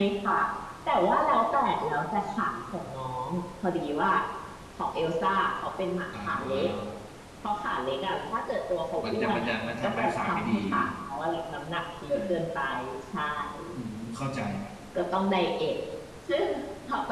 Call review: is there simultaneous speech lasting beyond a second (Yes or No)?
Yes